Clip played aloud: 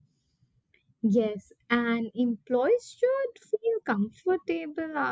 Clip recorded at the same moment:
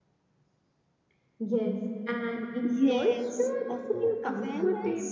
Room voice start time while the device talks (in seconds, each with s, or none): 2.6 s